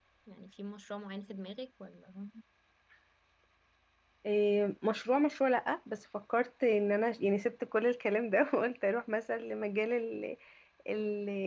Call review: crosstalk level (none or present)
none